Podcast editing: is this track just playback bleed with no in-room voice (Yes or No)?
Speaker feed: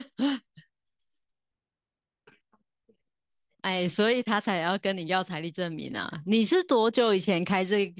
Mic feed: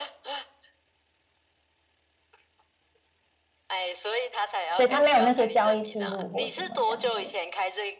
No